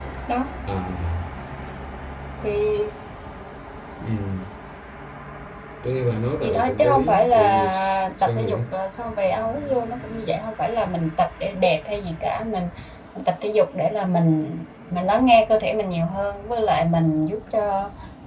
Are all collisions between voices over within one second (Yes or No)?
No